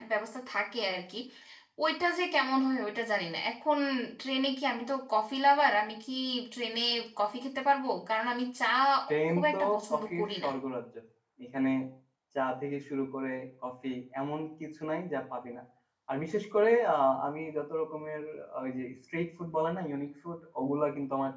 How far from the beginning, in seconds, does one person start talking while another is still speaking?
9.3 s

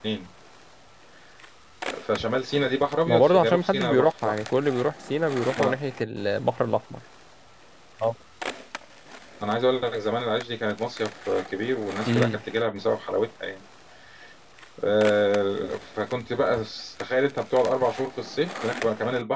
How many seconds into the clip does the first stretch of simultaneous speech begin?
3.1 s

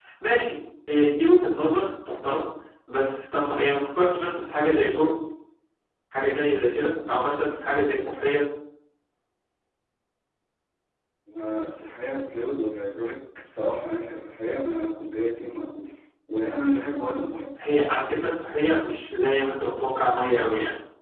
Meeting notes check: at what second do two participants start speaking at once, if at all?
none

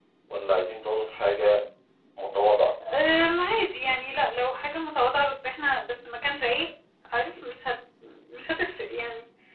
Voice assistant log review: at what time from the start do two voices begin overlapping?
none

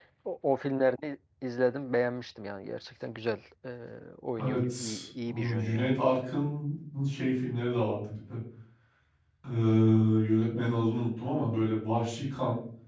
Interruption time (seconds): 4.4 s

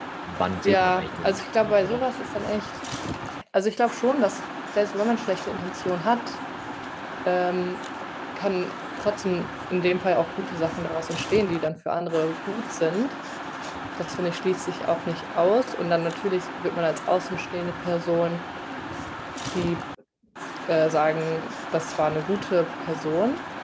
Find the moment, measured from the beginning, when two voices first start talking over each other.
0.6 s

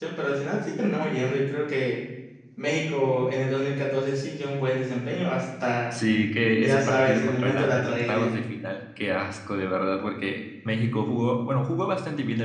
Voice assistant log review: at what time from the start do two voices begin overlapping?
6.6 s

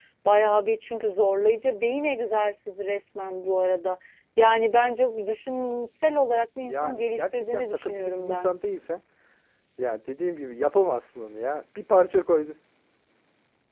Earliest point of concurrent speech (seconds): 6.7 s

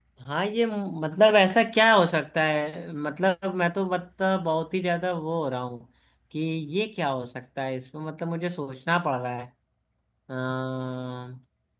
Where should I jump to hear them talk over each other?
none

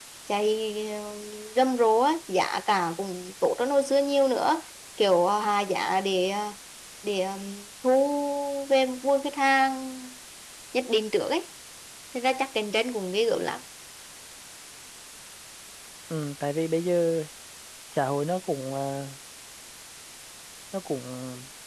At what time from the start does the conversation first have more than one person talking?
none

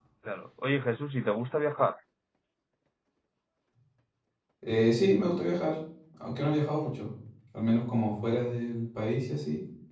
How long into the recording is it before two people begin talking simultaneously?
none

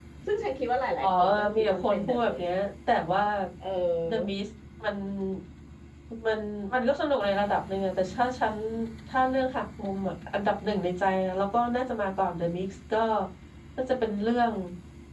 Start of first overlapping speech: 1.0 s

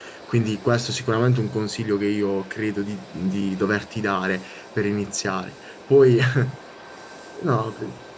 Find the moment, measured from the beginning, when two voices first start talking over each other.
none

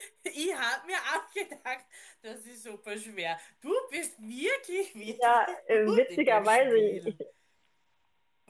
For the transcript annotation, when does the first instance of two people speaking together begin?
5.2 s

